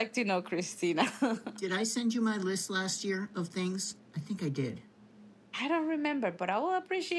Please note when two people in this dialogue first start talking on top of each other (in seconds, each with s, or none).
none